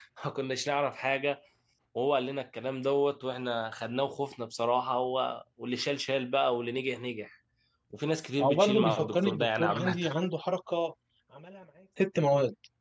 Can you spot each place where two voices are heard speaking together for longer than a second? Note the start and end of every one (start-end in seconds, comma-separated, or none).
8.4-10.0